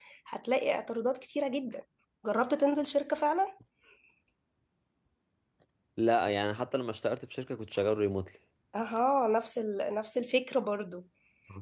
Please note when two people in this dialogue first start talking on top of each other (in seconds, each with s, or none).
none